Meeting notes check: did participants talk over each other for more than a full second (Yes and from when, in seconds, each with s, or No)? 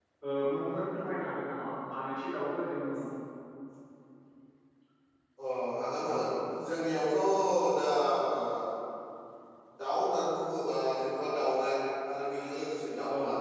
No